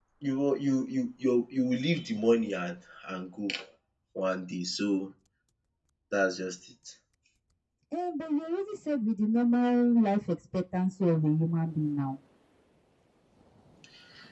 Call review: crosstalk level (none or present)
none